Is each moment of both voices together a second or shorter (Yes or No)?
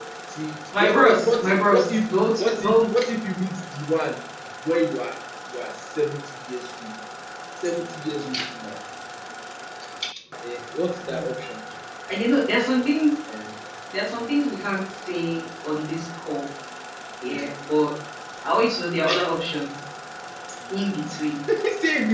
No